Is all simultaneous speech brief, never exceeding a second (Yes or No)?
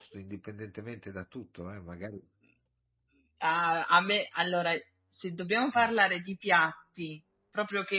Yes